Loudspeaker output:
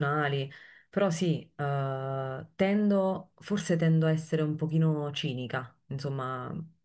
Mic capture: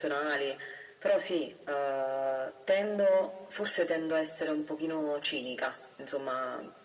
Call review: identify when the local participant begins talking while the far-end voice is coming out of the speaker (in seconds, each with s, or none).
none